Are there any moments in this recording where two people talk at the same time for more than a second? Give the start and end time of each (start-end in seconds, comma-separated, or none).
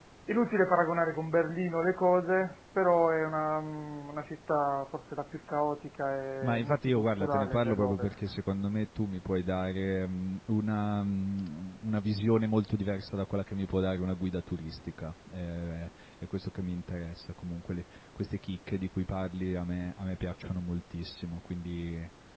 6.4-8.1